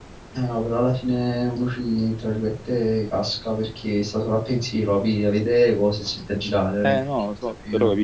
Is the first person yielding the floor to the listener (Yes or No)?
Yes